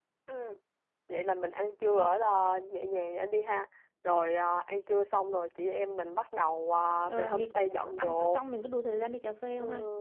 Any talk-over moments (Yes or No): Yes